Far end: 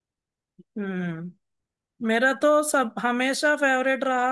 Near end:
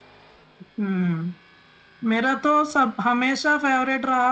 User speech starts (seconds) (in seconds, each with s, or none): none